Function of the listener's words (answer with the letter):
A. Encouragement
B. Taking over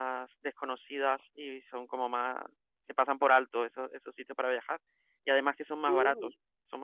A